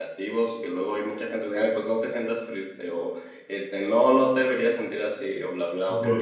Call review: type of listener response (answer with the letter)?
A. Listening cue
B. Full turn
A